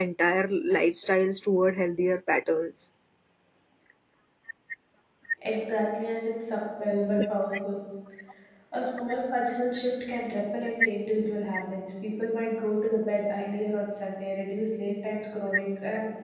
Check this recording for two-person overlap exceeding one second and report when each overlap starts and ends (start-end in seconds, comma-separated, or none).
none